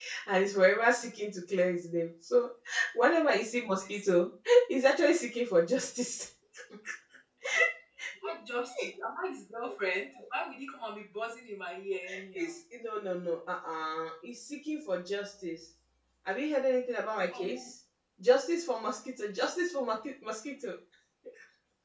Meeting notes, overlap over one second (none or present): none